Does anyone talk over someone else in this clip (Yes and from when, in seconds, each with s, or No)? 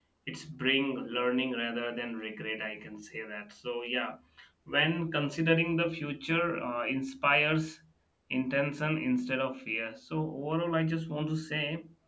No